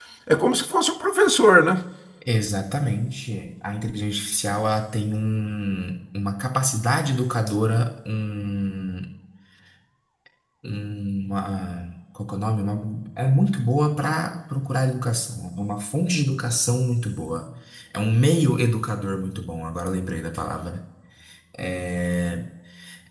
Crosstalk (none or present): none